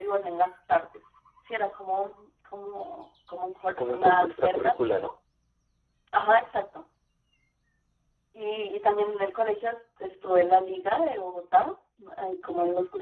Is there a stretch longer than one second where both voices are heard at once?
Yes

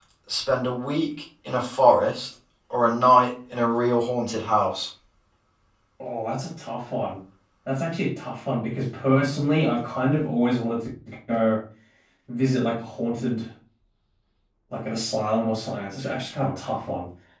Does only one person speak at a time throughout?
Yes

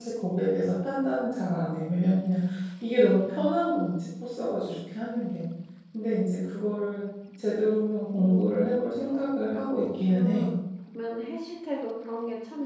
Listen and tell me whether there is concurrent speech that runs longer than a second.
Yes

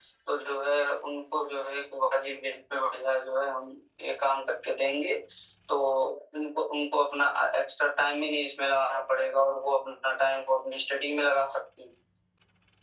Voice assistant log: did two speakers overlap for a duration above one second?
No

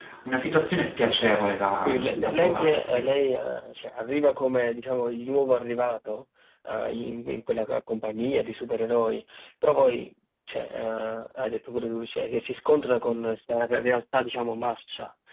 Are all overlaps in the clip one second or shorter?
No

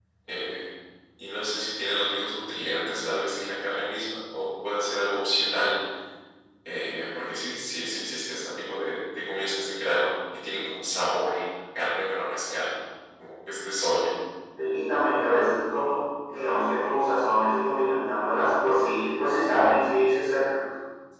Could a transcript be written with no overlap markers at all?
Yes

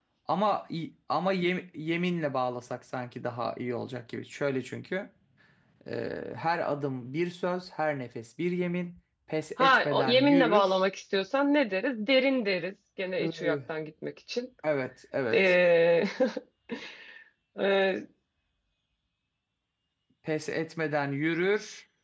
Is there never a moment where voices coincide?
No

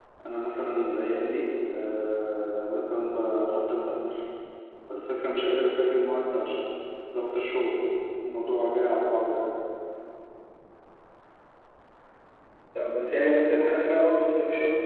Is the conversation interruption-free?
Yes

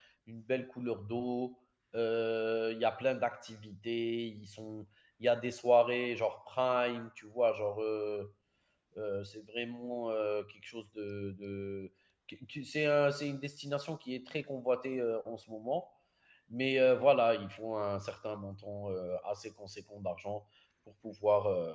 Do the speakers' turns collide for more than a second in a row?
No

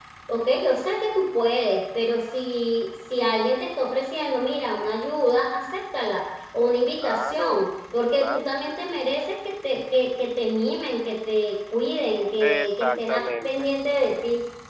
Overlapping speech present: Yes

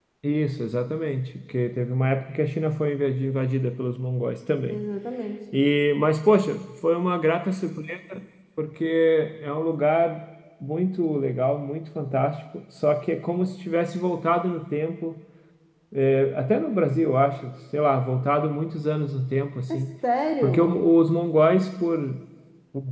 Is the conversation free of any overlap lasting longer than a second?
Yes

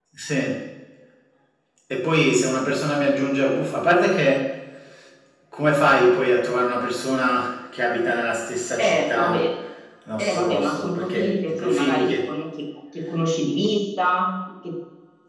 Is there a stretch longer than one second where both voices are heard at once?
Yes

